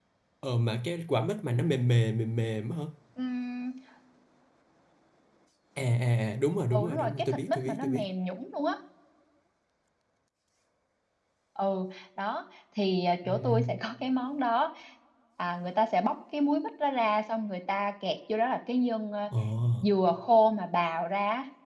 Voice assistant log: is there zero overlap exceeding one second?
No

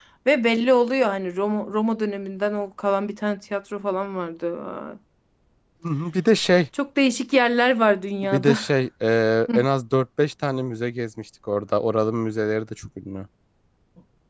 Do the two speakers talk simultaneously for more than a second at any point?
No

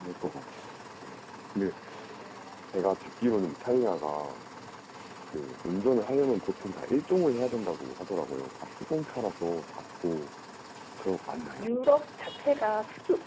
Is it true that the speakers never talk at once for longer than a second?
Yes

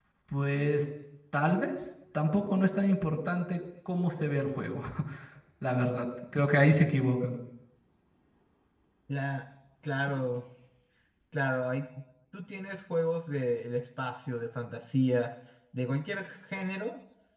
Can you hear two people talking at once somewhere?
No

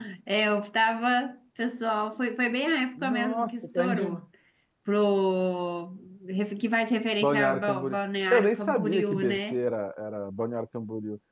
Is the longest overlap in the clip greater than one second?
Yes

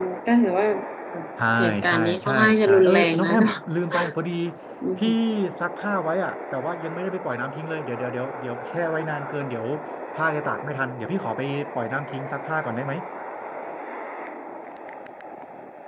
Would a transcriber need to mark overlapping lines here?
Yes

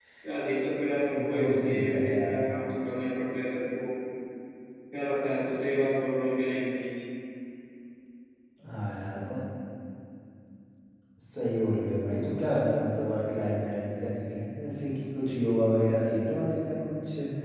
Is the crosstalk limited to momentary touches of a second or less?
No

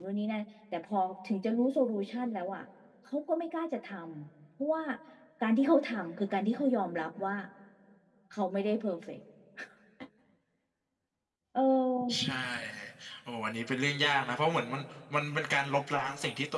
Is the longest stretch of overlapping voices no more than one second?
Yes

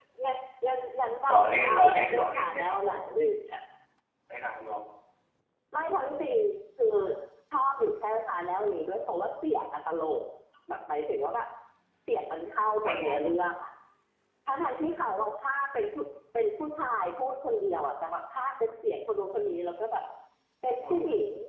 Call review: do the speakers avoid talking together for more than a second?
No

